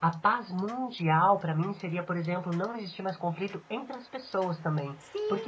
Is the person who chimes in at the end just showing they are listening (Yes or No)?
No